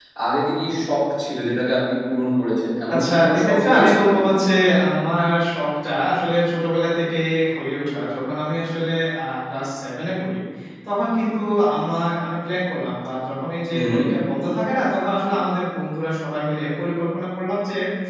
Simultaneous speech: Yes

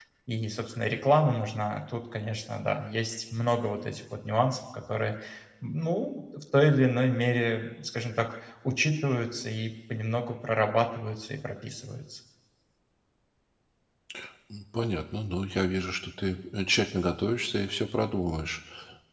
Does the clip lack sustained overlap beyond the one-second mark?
Yes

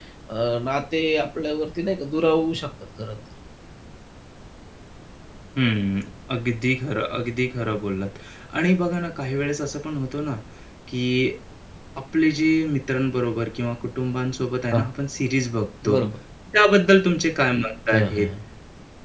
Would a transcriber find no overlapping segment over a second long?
Yes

